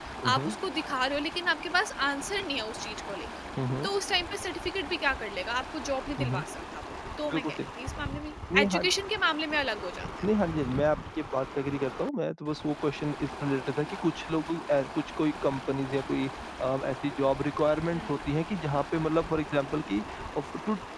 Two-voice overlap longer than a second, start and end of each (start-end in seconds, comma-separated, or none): none